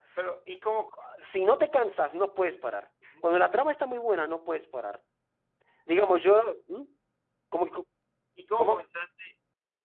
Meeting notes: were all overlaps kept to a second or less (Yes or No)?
Yes